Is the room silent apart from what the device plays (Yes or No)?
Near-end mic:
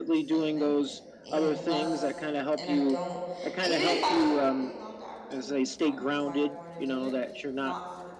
No